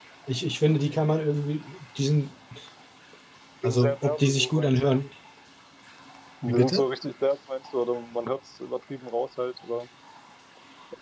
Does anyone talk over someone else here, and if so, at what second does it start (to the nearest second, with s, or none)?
4 s